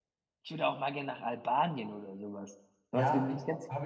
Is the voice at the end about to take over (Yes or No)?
Yes